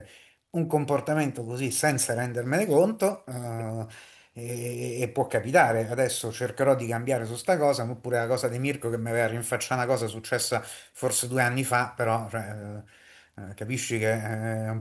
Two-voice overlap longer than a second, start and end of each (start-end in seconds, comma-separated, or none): none